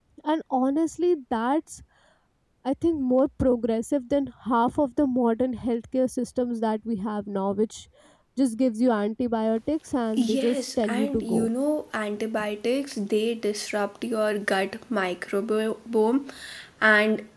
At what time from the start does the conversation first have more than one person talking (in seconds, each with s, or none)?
10.2 s